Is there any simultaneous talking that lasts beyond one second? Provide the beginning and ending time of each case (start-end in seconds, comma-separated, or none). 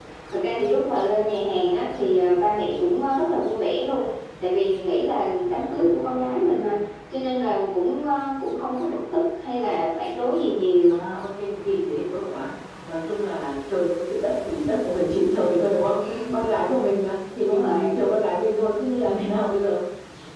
none